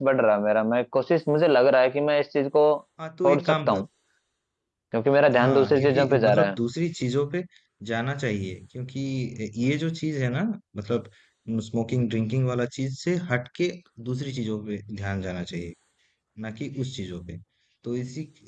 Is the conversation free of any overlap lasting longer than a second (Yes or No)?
No